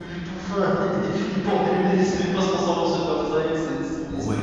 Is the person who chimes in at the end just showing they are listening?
No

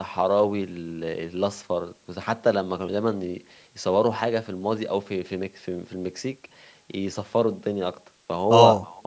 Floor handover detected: No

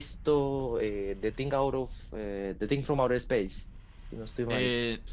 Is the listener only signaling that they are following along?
No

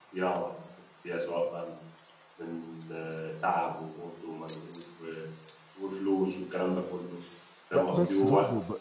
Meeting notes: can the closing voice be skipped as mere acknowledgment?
No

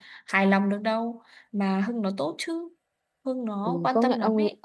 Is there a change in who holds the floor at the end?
Yes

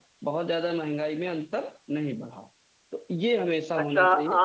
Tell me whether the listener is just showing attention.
No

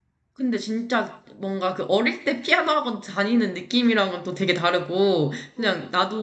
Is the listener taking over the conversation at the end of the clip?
No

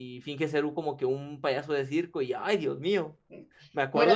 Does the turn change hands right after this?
Yes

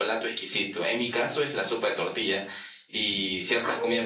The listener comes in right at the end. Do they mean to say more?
No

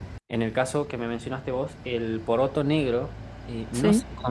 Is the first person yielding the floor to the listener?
No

